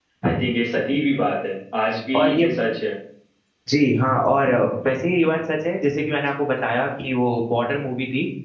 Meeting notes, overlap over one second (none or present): none